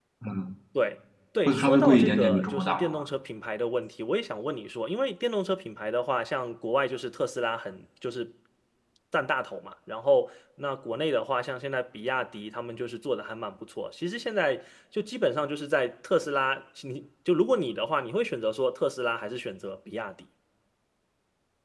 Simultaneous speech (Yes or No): Yes